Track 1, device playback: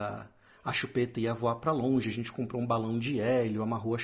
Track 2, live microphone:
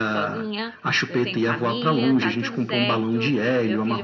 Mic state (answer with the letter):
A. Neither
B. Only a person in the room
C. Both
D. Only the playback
C